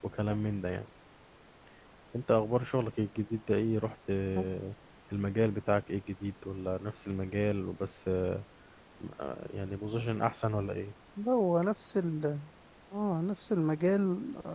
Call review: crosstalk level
none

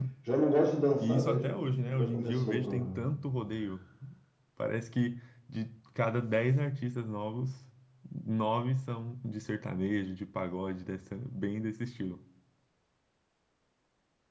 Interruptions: present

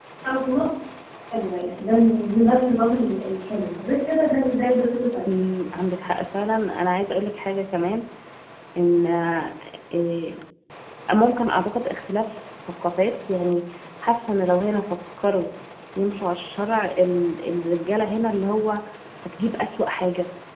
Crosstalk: none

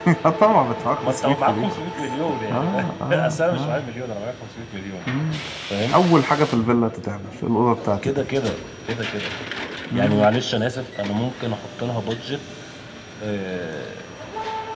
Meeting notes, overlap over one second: present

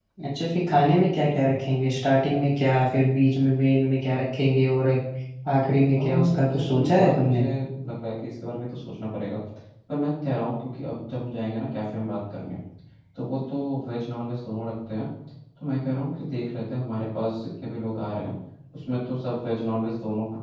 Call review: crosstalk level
present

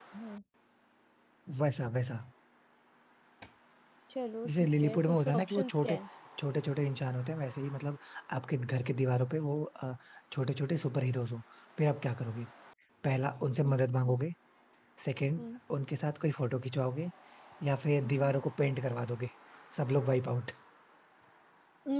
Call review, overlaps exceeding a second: present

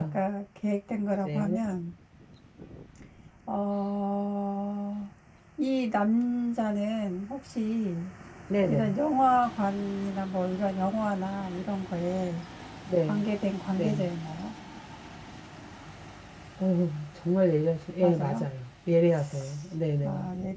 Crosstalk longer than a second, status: none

